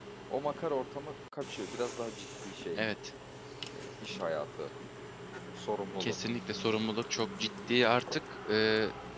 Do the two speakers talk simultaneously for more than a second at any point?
No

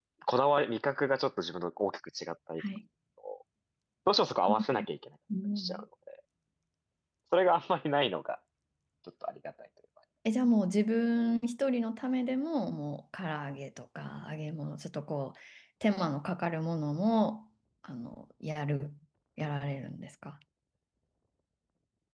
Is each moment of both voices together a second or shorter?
Yes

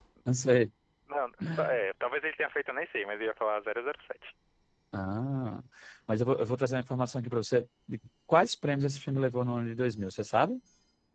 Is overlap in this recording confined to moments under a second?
Yes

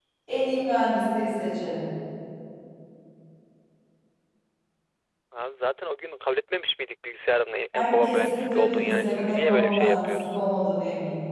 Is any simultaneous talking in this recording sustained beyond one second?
Yes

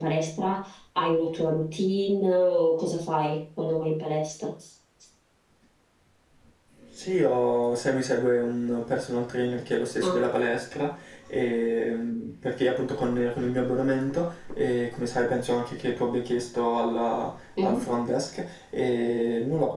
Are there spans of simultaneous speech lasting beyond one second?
No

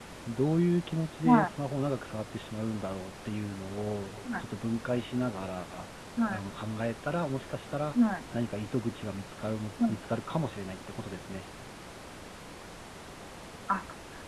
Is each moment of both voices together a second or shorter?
Yes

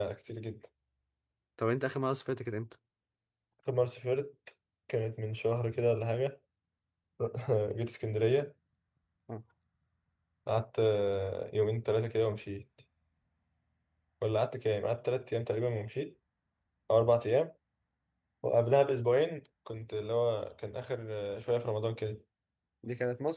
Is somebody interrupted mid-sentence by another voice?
No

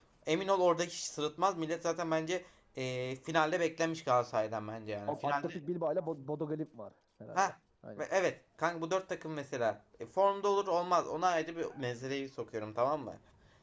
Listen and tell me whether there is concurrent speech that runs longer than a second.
No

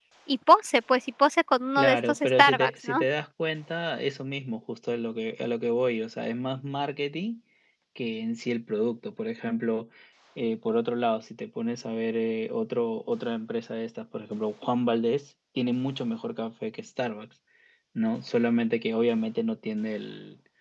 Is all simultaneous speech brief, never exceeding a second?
No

